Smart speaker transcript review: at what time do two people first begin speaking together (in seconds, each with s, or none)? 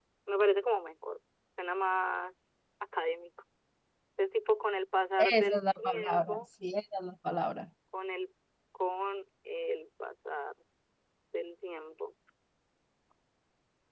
5.2 s